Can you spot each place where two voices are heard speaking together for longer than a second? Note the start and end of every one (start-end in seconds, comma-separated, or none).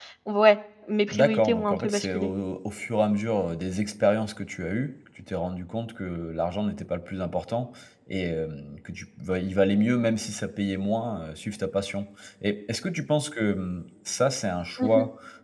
1.1-2.3